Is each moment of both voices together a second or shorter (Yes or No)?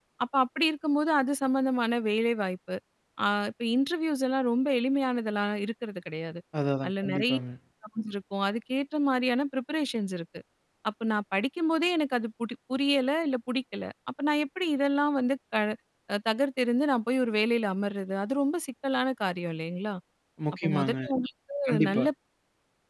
Yes